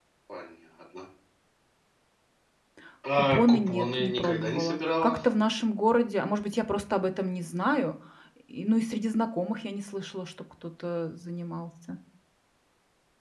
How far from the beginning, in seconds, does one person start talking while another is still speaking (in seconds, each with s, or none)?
3.1 s